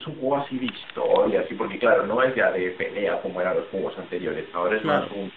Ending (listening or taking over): listening